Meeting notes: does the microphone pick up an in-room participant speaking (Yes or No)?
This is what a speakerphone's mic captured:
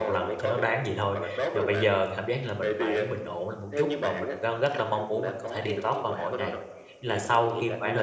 Yes